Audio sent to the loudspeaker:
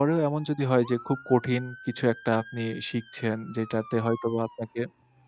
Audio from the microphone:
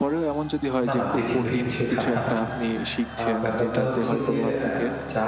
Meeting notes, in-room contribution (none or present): present